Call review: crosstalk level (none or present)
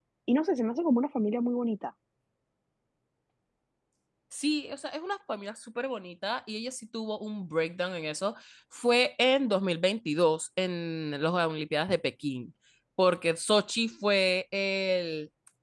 none